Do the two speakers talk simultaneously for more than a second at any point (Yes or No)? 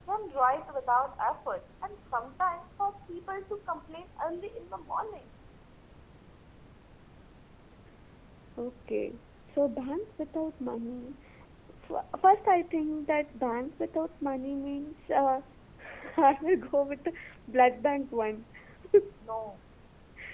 No